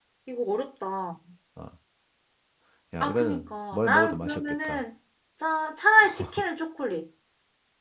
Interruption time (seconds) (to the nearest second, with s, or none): 3 s